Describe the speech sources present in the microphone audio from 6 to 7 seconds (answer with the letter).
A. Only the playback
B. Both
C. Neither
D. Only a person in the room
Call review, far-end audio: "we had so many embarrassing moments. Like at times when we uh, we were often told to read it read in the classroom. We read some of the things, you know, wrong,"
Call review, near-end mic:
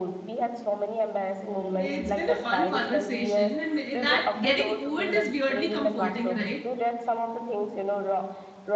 B